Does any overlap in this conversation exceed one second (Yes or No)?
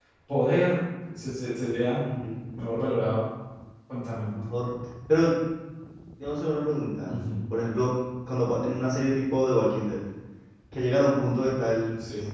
No